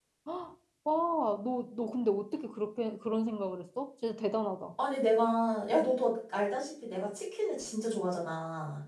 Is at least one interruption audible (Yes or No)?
No